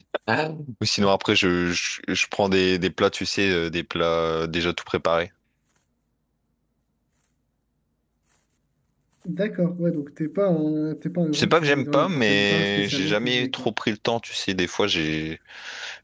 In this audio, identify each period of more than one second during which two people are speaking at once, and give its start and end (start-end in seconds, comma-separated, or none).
11.3-13.7